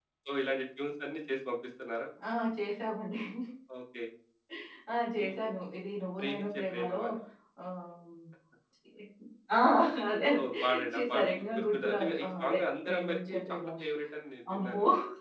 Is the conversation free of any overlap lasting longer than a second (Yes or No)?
No